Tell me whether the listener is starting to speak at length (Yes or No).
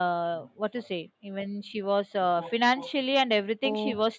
No